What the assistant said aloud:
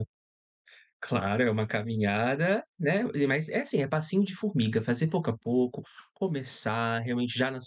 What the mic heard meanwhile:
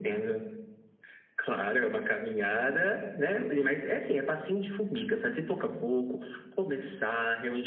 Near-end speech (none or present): none